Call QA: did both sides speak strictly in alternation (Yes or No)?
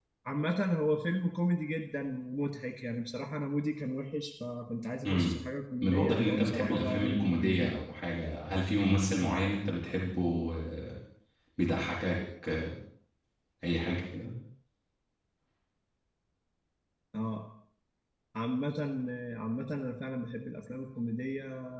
No